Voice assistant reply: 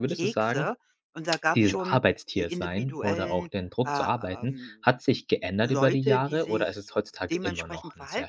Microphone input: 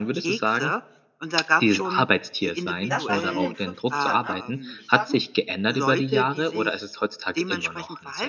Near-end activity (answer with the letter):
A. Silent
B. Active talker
B